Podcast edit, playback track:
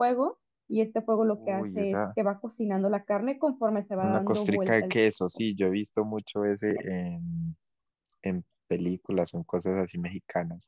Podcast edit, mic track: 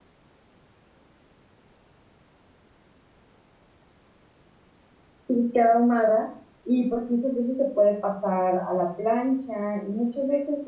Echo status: none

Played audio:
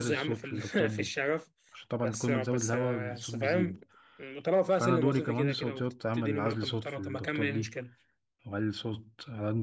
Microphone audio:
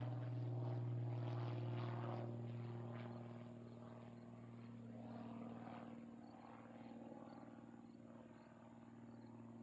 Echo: none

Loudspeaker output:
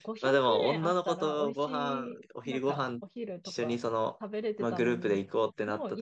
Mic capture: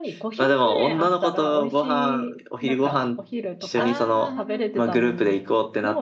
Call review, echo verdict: present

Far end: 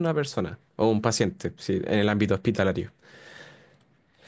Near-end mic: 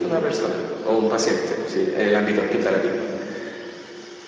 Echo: present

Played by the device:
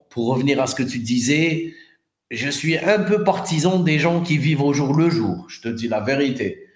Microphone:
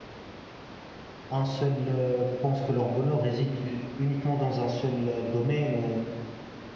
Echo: none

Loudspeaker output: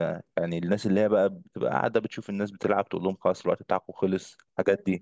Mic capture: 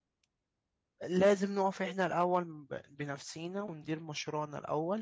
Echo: none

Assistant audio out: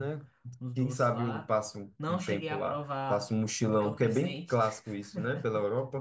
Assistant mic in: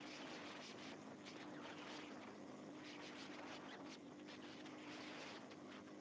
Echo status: none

